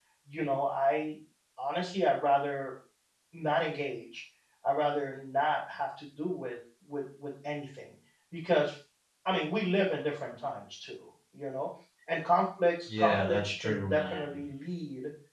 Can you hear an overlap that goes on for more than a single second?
Yes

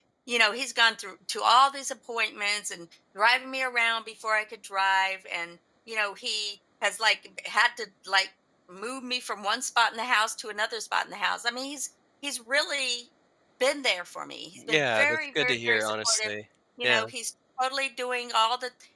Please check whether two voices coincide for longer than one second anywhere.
Yes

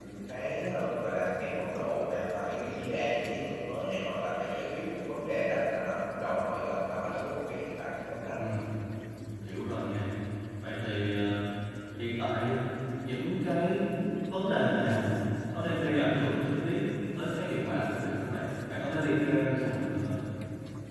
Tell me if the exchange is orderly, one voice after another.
Yes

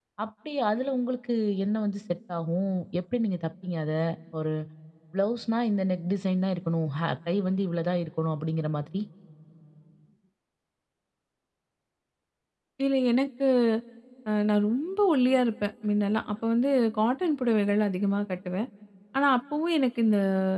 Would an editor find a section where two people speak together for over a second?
No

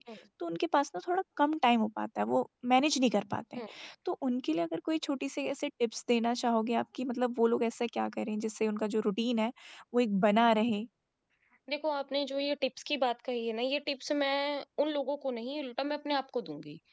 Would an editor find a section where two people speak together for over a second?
No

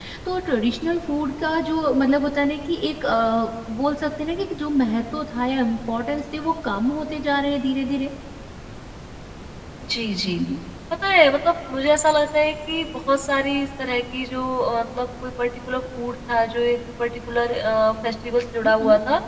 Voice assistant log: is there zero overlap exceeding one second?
Yes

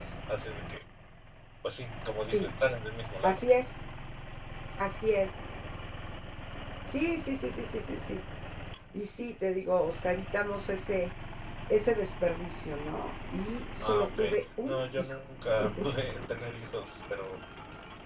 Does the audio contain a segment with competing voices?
Yes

